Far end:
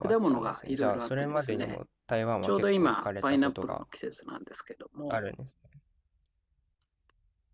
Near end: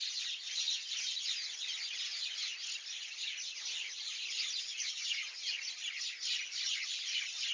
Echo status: none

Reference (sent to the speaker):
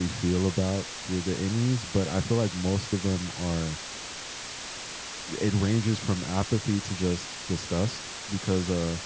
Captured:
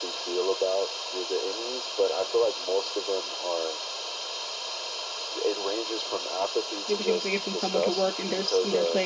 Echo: present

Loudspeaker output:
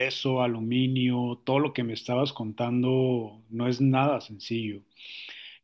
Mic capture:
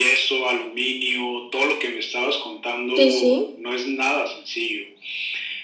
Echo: present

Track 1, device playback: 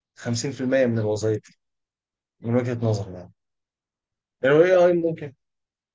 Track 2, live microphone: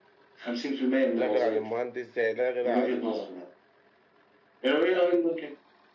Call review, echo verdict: present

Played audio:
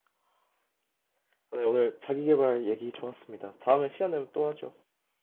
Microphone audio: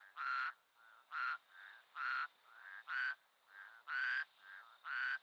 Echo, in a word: none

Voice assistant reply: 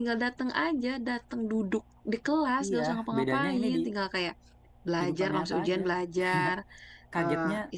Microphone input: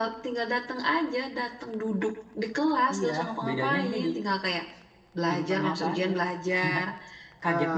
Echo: present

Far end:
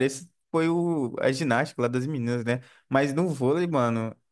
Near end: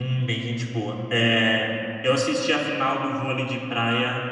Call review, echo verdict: none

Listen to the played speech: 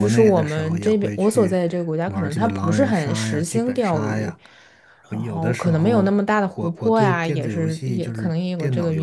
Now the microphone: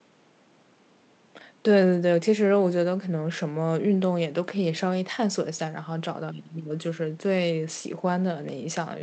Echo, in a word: none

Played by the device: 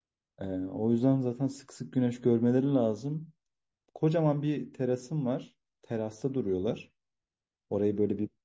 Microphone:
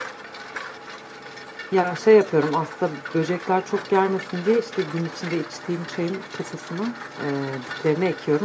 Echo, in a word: none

